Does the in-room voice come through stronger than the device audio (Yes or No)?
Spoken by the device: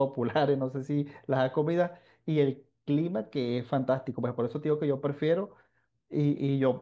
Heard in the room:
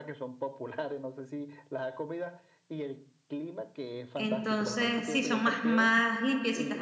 Yes